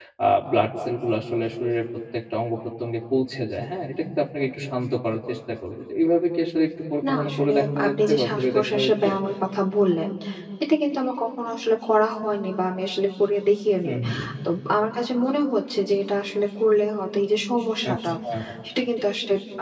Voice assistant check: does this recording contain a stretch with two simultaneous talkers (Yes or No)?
Yes